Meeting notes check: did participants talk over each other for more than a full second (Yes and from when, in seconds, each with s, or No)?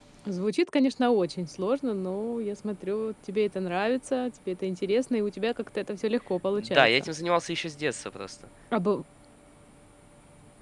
No